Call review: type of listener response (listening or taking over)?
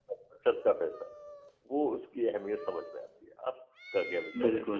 taking over